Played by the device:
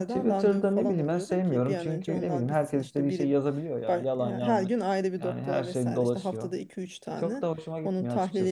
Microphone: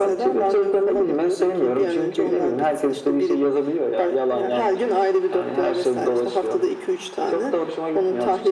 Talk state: echo only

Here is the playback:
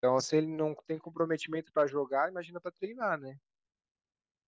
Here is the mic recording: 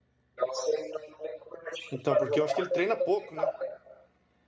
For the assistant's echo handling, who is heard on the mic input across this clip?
both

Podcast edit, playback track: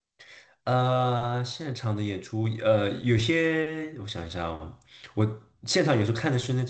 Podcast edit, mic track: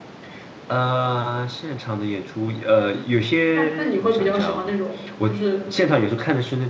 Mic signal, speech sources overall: both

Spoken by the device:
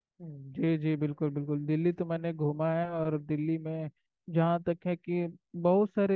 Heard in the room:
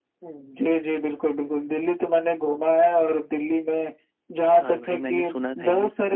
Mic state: both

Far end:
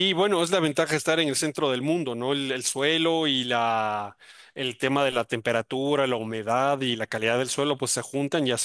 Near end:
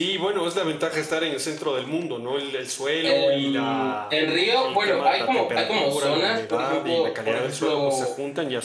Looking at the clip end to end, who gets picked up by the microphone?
both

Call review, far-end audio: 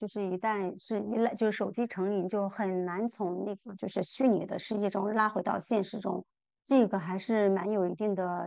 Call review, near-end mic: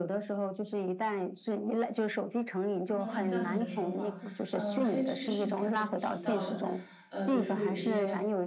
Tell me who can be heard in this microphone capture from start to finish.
both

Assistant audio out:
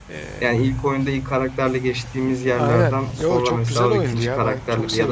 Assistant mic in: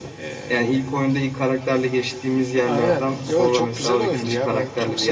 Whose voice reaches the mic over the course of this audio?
echo only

